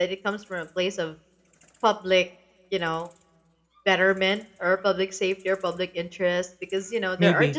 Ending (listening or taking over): listening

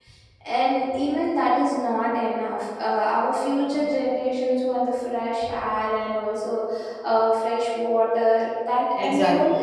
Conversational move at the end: listening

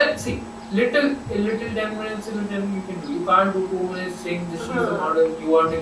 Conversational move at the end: listening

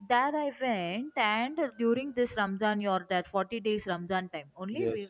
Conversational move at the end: taking over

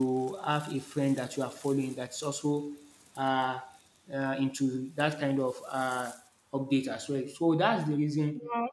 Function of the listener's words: listening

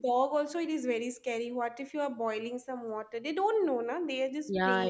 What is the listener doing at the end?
taking over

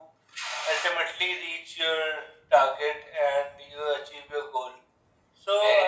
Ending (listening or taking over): taking over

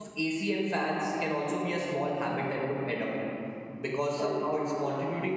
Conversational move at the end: listening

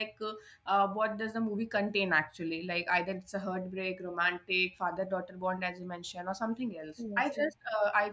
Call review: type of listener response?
listening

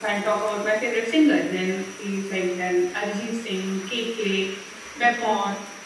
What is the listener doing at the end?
listening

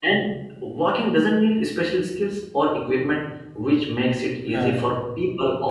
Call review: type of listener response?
listening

